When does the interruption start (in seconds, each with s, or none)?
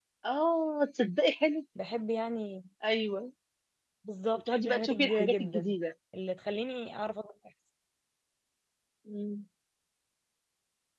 4.5 s